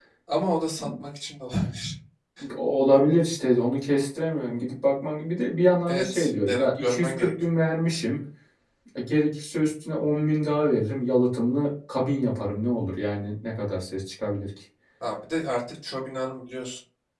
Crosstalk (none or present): present